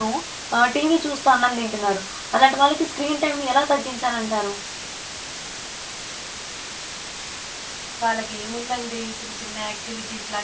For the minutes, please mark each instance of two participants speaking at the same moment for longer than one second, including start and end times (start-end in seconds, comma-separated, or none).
none